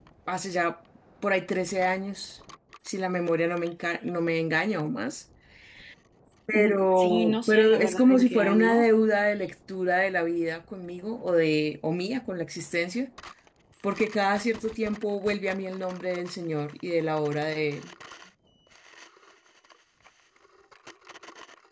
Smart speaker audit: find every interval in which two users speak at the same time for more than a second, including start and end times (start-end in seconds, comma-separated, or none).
6.5-8.8